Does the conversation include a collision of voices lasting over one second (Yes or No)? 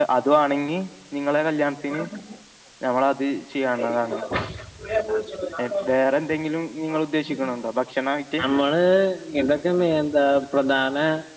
No